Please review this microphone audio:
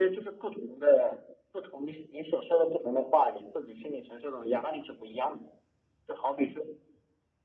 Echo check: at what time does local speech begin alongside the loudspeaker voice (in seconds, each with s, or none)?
none